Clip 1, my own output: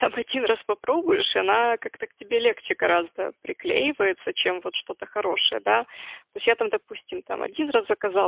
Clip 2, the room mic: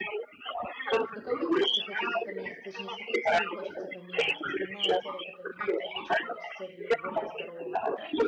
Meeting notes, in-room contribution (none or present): present